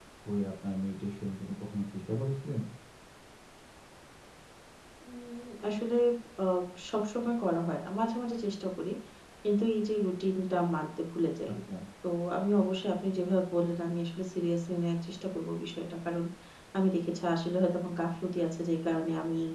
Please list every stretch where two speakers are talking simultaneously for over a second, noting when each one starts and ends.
none

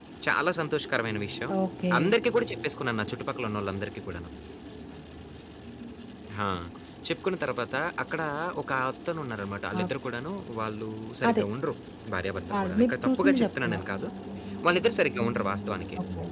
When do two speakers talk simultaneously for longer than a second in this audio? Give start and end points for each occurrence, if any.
12.6-13.9

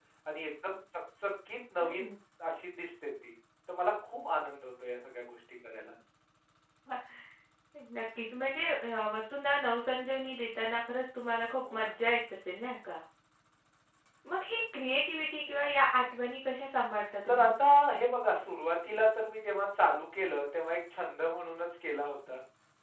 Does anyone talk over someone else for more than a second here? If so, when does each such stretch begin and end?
none

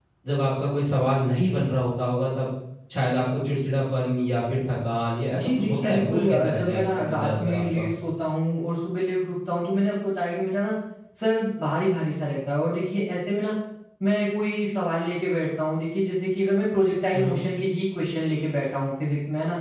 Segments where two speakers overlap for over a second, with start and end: 5.3-7.8

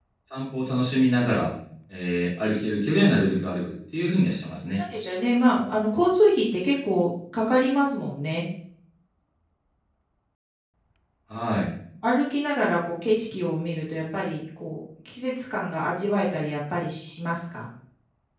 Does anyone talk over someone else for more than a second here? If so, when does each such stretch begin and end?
none

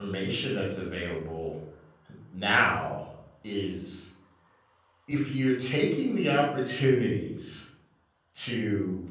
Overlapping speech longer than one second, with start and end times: none

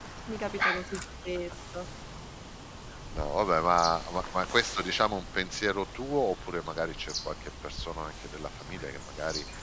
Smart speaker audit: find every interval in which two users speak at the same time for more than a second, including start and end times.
none

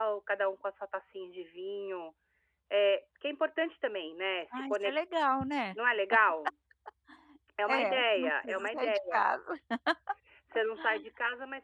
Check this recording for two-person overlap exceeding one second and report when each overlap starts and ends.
7.7-9.0

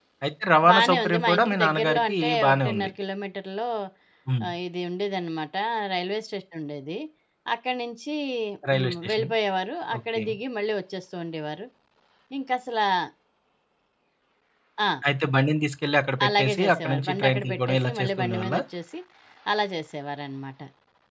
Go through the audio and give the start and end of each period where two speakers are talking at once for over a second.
0.7-2.9, 16.3-18.6

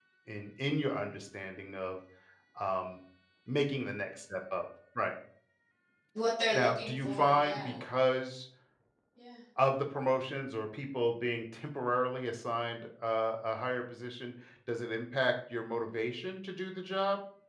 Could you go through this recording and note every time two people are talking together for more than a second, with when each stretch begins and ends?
6.5-7.7

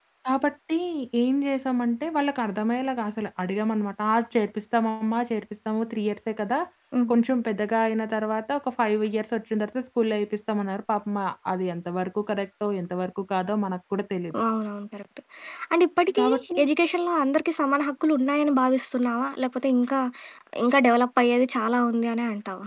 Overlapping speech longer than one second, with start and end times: none

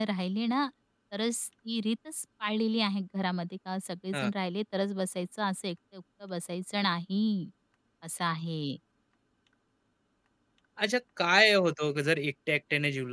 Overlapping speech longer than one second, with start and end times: none

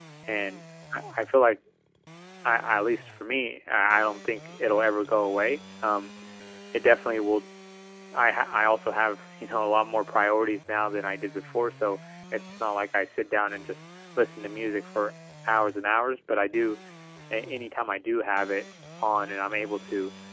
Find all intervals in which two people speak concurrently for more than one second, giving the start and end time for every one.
none

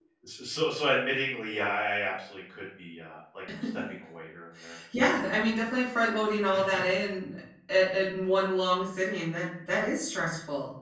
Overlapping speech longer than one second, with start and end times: none

